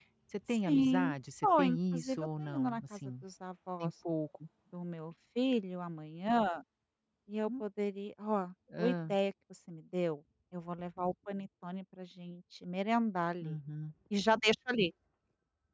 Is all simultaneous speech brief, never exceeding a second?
No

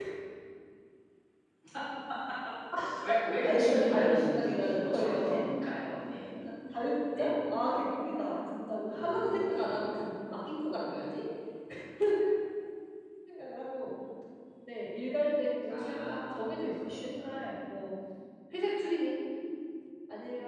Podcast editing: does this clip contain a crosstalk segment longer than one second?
Yes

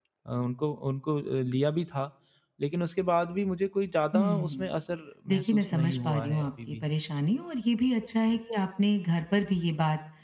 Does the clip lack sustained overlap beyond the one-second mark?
No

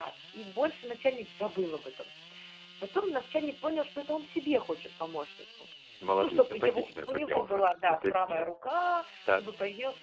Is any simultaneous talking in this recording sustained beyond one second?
Yes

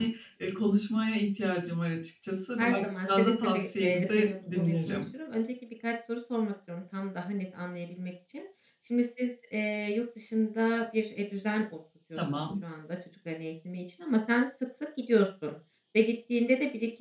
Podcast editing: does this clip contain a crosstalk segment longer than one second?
Yes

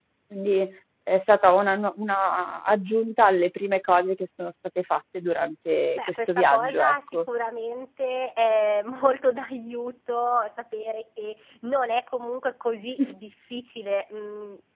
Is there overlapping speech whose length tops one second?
Yes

